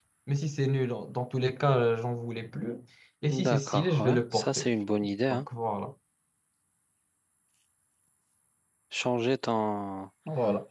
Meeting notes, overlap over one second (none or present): present